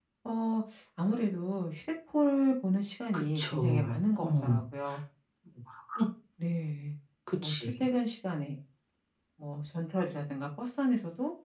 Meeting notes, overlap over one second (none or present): present